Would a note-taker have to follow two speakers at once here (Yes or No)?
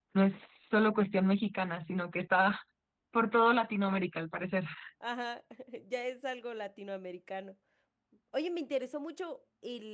No